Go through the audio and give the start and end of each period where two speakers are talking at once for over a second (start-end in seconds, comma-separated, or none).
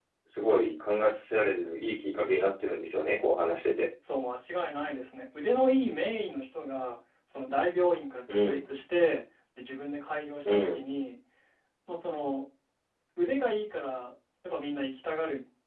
none